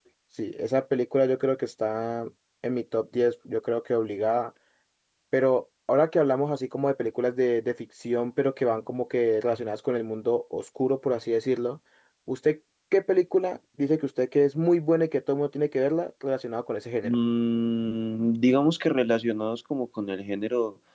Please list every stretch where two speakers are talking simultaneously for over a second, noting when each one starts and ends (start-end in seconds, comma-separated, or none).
none